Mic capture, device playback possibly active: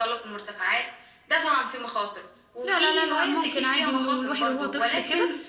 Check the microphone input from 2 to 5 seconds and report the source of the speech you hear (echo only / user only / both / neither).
both